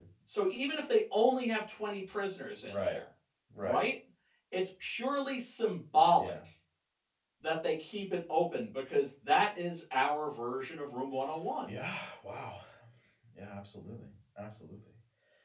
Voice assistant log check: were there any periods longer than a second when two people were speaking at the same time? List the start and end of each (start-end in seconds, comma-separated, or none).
none